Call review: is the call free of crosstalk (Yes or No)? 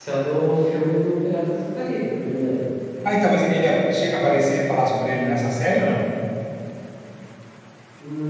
Yes